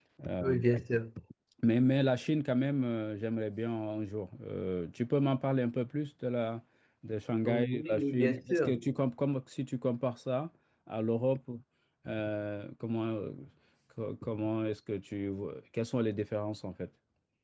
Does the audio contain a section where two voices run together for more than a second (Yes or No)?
Yes